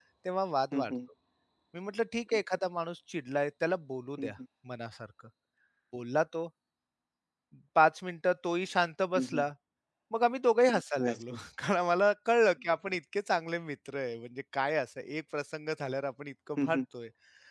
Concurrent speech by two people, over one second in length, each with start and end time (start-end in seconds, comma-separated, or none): none